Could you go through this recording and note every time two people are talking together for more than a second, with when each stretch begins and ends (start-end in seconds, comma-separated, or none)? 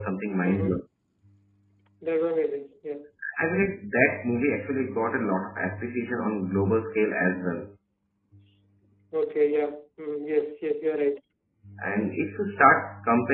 none